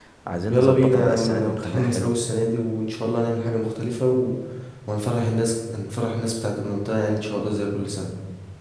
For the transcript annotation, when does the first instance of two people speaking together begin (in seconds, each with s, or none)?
0.5 s